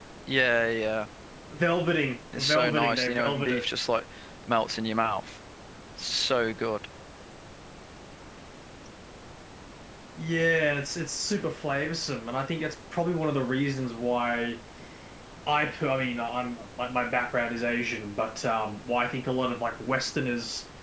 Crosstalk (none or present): present